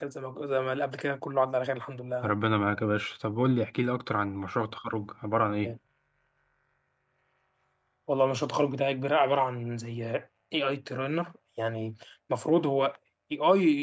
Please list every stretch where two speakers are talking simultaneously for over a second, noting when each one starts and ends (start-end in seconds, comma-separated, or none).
none